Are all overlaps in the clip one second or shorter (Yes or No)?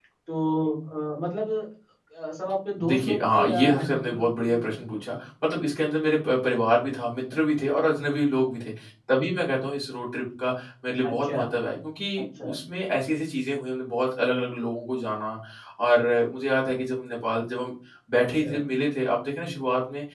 No